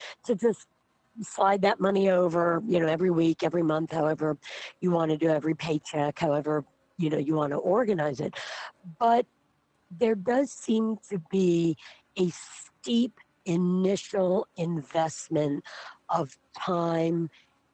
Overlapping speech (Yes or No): No